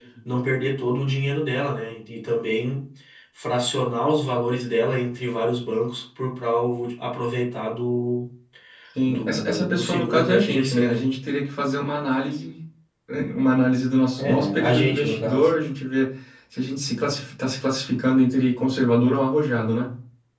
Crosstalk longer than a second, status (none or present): present